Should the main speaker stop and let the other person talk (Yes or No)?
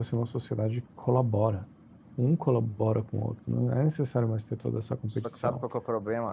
Yes